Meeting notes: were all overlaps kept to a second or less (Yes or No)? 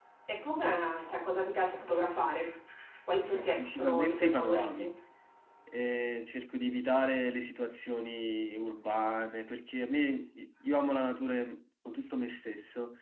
No